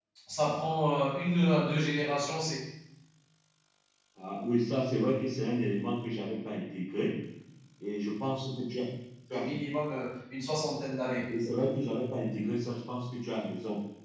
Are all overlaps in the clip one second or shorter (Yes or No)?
Yes